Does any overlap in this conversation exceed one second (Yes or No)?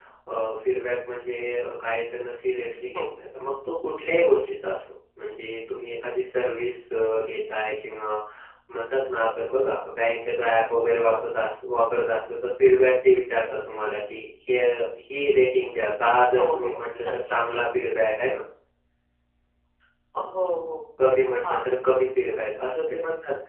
No